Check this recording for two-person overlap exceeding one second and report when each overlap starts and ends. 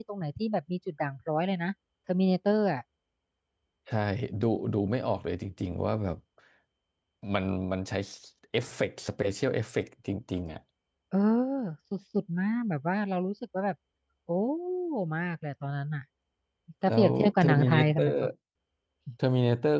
16.9-18.1

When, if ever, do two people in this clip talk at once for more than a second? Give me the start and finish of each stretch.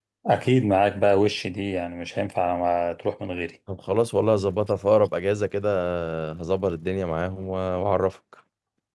none

